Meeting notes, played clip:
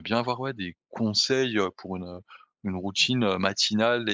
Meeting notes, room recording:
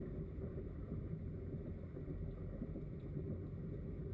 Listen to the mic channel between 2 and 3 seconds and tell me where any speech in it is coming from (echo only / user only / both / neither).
neither